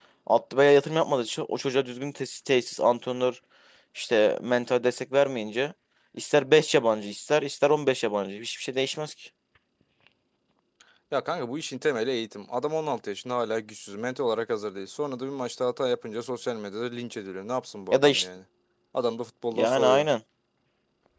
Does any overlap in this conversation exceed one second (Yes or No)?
No